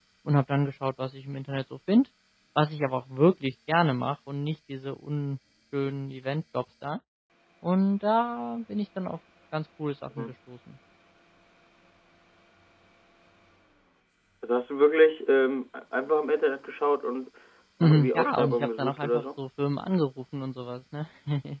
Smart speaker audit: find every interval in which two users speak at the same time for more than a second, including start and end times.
17.8-19.2

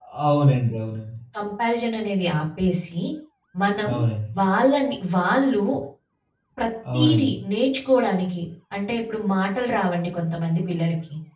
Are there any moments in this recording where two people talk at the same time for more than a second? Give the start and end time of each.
none

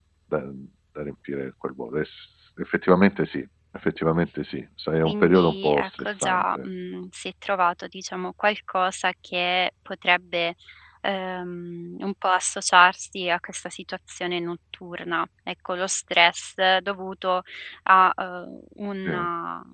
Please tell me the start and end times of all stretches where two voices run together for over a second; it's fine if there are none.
5.0-6.7

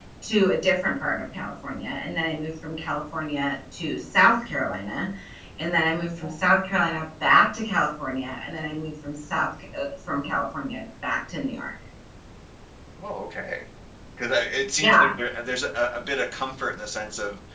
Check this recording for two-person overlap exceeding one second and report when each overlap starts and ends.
none

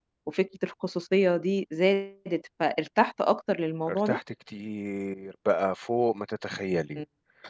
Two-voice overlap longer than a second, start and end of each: none

